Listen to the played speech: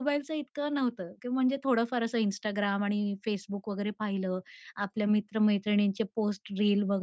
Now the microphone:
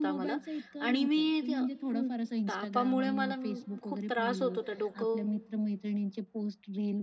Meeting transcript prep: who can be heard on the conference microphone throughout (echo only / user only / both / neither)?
both